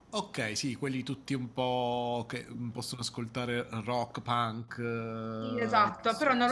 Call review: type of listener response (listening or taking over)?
taking over